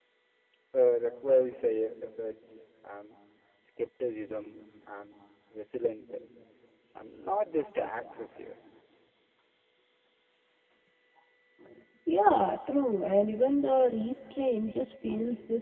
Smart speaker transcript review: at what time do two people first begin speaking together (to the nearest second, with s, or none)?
none